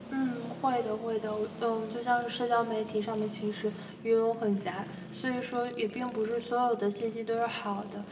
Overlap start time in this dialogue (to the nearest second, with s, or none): none